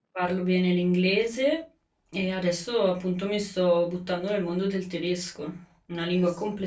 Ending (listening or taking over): listening